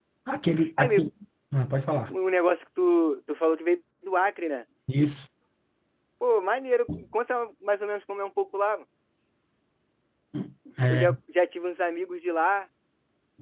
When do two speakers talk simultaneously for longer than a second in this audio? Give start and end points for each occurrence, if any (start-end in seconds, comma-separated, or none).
none